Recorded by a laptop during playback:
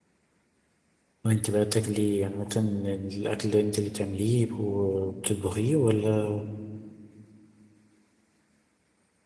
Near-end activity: present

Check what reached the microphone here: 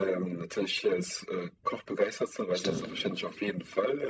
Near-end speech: present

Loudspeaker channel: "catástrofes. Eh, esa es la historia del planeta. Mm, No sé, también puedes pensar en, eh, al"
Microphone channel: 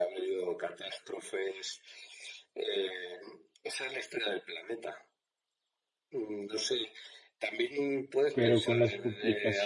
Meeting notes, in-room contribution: present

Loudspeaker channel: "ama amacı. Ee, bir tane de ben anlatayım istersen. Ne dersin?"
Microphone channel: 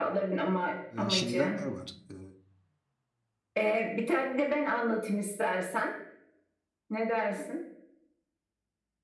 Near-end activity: present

